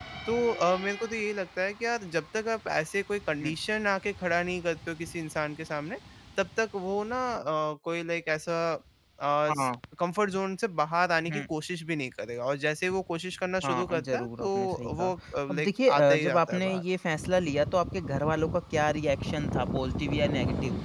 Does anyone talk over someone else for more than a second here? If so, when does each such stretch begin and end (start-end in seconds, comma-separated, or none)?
13.6-15.1, 15.5-16.8